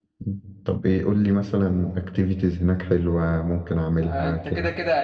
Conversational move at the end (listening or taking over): taking over